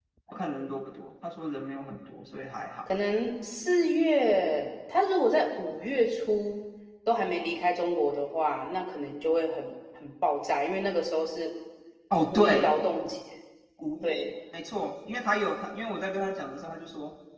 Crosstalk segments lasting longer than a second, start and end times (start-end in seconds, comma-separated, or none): none